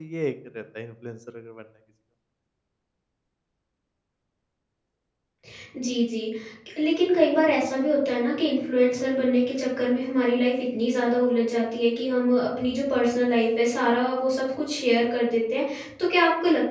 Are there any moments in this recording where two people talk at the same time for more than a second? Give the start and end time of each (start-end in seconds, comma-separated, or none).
none